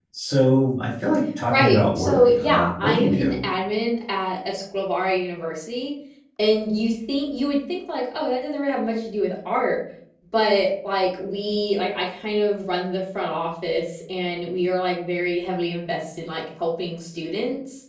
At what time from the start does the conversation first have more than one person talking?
1.5 s

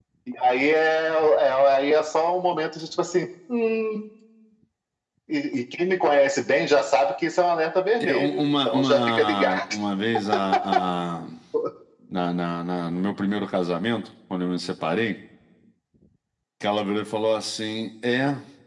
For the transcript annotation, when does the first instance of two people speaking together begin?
8.0 s

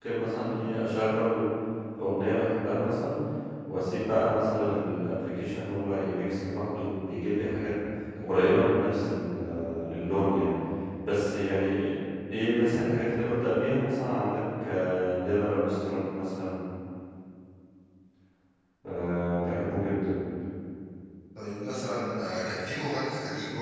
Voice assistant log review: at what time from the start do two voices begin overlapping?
none

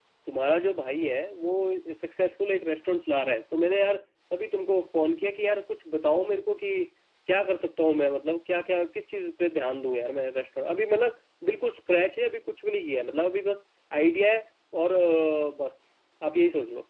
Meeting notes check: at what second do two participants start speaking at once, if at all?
none

